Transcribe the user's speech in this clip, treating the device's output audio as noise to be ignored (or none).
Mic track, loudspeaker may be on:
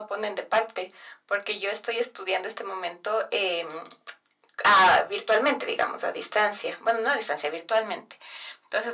none